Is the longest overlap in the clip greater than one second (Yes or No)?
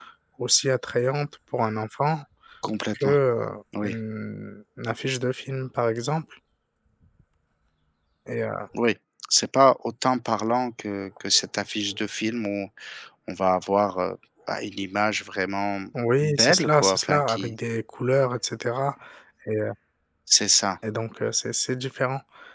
Yes